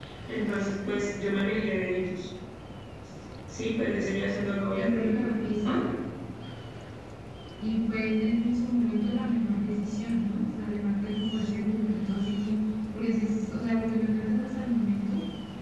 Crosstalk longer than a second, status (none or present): none